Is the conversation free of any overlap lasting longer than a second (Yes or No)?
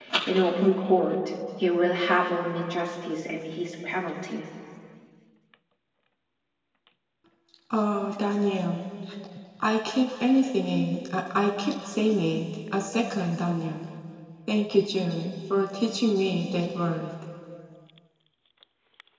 Yes